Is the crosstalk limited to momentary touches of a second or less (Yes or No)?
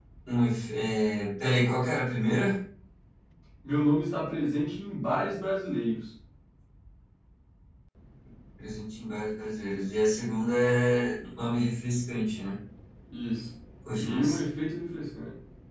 Yes